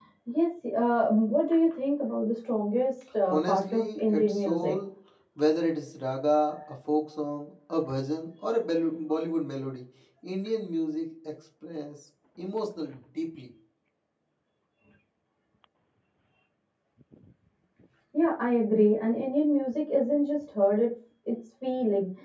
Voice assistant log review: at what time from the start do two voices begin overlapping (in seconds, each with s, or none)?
3.3 s